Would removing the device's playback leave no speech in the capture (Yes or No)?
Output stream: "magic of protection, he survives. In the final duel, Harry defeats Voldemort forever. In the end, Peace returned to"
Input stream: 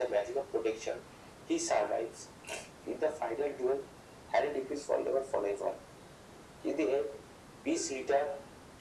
Yes